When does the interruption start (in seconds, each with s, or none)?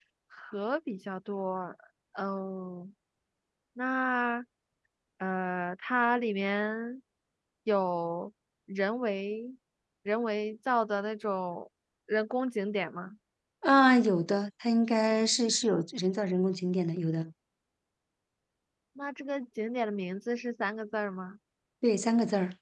none